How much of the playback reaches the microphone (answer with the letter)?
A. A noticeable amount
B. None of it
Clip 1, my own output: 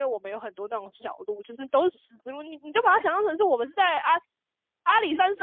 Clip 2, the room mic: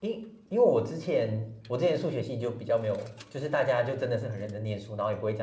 B